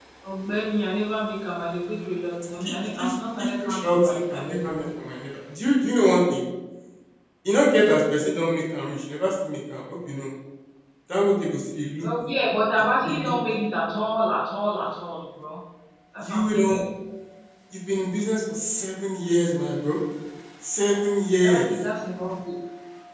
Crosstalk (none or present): present